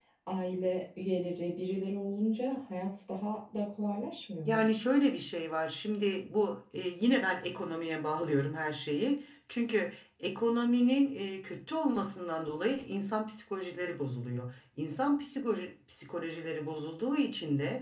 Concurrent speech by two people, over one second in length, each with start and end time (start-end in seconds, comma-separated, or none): none